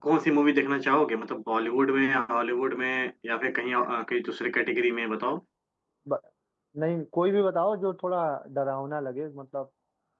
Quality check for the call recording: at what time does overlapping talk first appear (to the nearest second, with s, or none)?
none